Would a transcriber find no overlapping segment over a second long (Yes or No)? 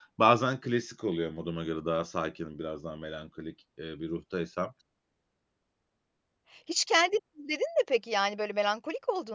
Yes